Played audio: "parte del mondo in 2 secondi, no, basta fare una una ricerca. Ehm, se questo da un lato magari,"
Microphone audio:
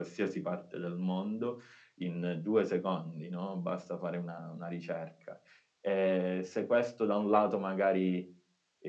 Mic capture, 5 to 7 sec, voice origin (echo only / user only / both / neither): echo only